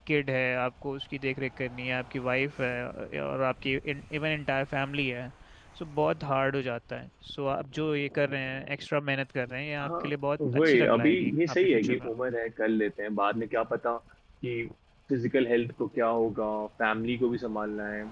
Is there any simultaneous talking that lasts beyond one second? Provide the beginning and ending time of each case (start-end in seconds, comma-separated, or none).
10.5-12.1